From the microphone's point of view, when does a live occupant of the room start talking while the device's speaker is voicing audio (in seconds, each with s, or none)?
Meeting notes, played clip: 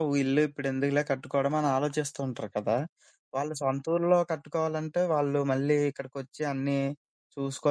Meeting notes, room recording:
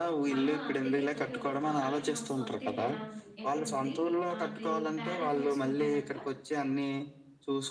0.3 s